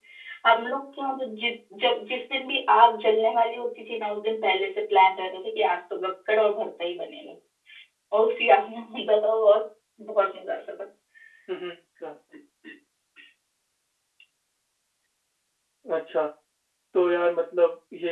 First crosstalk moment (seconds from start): none

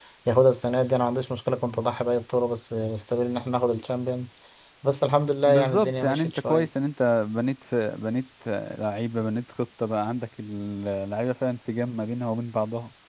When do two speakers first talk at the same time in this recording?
5.4 s

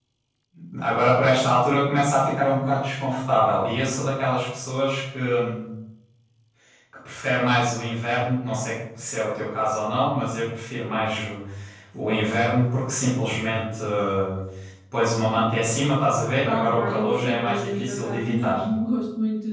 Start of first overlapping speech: 16.4 s

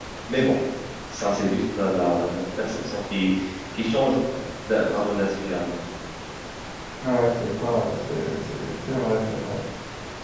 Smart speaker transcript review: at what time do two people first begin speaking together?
none

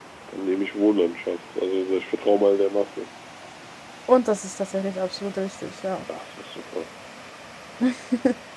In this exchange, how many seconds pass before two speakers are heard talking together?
none

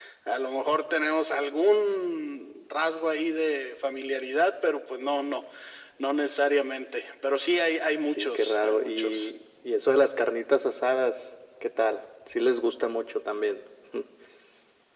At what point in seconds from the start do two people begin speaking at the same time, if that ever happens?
8.1 s

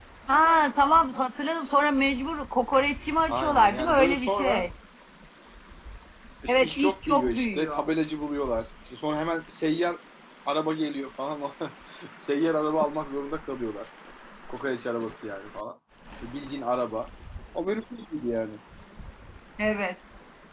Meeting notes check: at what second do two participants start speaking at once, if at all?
3.3 s

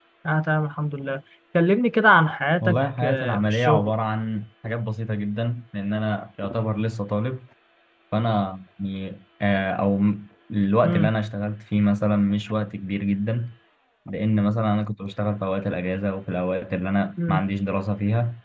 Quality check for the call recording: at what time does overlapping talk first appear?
2.6 s

